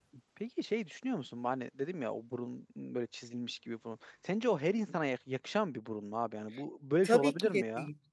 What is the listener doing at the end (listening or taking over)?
taking over